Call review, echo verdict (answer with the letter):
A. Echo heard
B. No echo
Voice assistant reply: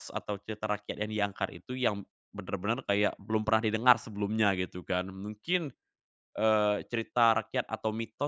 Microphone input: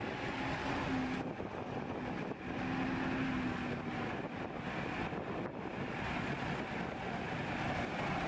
B